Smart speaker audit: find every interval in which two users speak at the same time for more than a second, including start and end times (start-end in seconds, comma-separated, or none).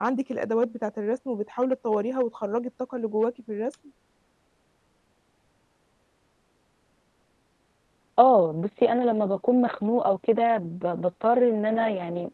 none